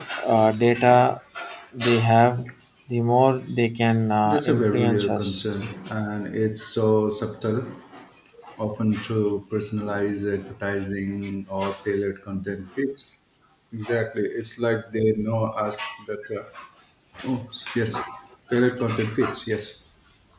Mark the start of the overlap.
4 s

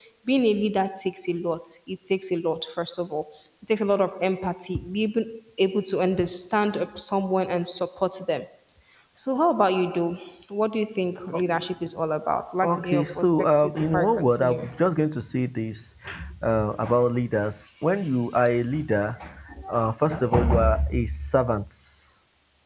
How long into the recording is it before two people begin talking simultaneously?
13 s

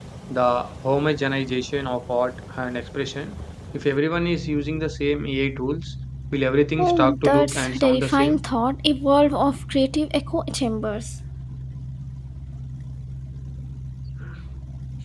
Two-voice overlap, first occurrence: 7 s

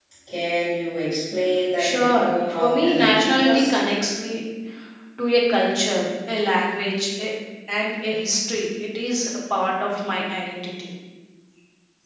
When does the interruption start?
2 s

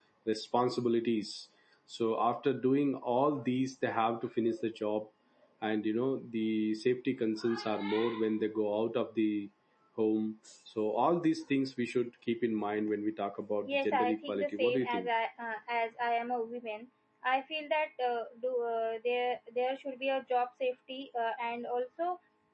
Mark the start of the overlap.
14 s

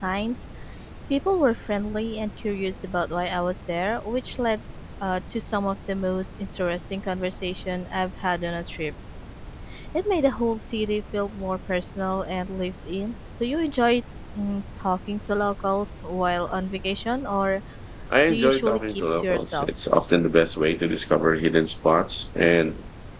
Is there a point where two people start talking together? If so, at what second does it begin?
18 s

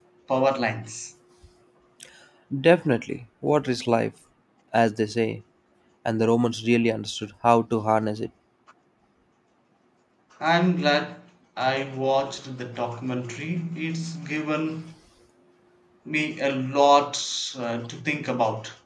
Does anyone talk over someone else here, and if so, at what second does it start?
none

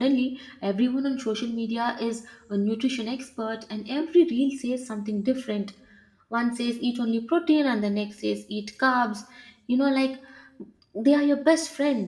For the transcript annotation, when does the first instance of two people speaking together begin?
none

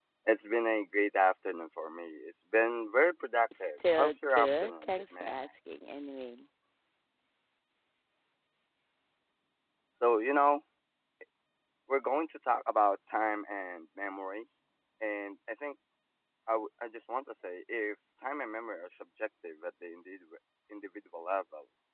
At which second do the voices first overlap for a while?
4 s

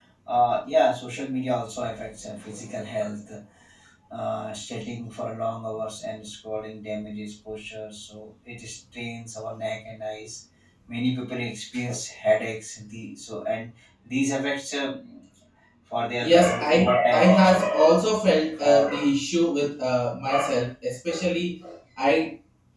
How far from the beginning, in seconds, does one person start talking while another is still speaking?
16 s

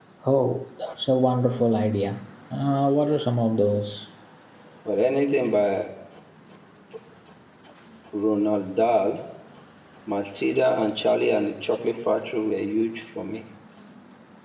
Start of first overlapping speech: none

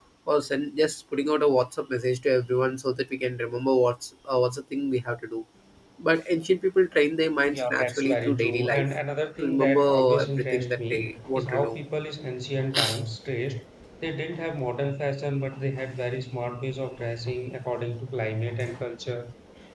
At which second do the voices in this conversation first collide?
7 s

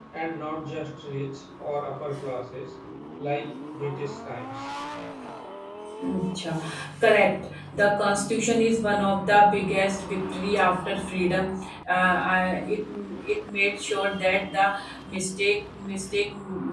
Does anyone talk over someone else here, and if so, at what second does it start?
none

